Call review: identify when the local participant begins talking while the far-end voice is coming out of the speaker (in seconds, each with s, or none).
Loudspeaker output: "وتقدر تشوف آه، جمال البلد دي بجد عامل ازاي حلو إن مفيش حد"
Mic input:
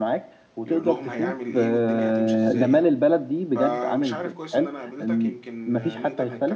0.6 s